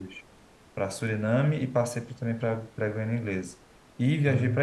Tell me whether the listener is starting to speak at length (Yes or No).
No